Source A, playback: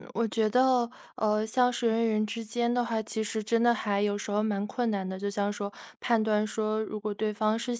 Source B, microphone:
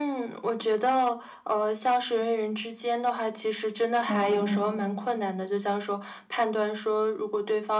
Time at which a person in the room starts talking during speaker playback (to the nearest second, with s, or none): 4 s